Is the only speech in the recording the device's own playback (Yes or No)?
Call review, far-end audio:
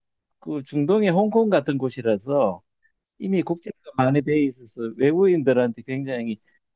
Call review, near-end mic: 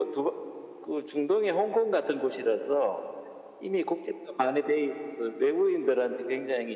Yes